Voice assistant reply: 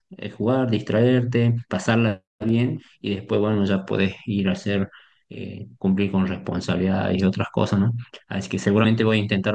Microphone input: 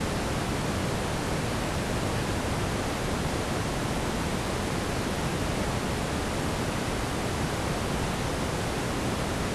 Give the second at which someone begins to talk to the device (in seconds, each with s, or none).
none